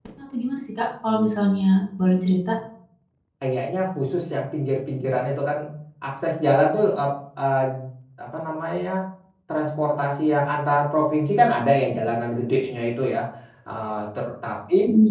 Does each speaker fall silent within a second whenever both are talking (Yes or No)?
Yes